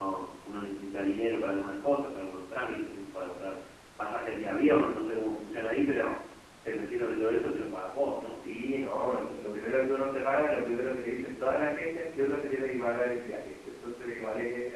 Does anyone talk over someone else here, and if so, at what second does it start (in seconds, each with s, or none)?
none